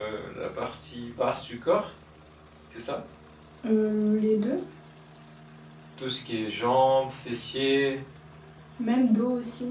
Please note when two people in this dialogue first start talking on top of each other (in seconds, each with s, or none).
none